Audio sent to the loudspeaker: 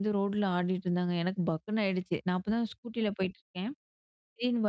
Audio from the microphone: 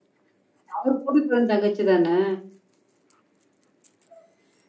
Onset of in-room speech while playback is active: 0.8 s

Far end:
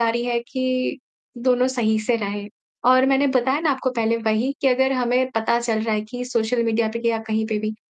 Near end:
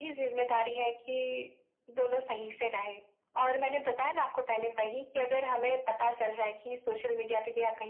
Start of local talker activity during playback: none

